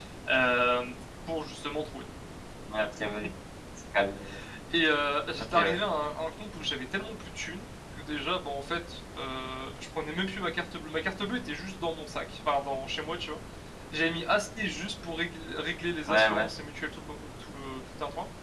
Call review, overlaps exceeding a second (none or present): none